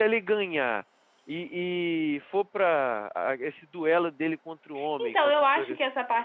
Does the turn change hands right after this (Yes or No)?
Yes